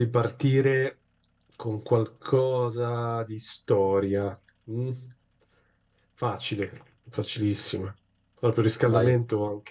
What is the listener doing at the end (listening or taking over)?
listening